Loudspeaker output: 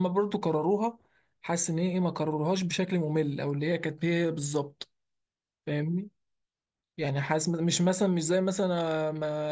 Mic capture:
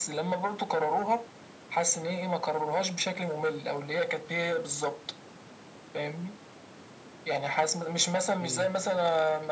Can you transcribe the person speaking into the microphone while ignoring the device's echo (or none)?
امم